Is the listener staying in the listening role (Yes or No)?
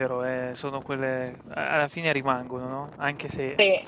Yes